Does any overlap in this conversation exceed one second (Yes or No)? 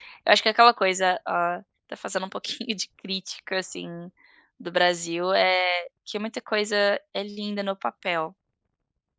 No